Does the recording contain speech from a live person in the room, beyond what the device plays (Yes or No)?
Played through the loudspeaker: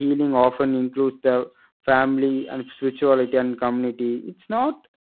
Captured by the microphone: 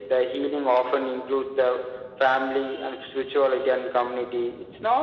No